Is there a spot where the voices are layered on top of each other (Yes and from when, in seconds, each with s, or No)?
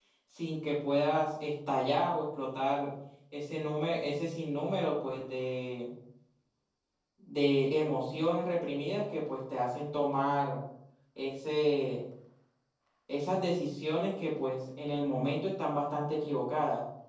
No